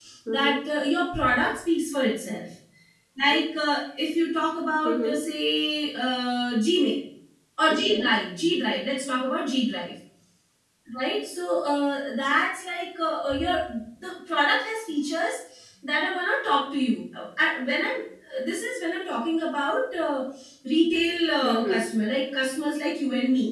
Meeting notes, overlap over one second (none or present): none